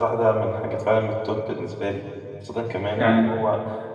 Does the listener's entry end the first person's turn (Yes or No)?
No